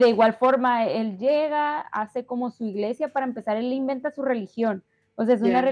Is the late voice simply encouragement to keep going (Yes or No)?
Yes